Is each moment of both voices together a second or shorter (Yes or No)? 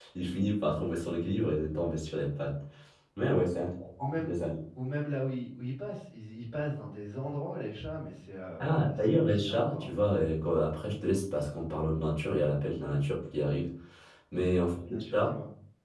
No